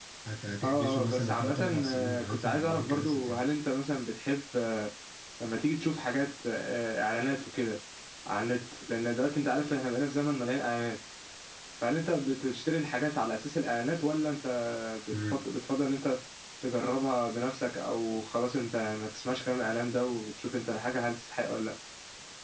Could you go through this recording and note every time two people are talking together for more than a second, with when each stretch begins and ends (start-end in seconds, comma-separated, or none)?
0.6-3.5